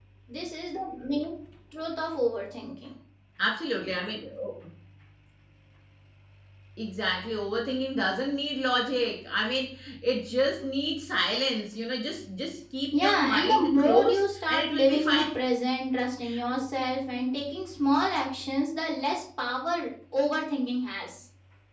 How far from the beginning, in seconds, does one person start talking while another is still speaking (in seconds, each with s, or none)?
12.9 s